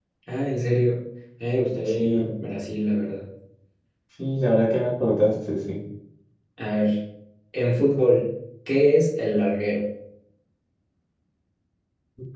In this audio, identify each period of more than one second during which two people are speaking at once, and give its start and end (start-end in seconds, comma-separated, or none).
none